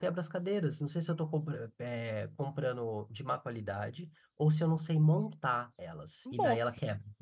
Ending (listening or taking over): taking over